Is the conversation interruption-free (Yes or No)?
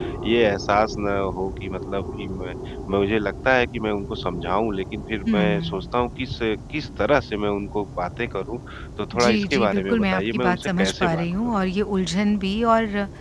No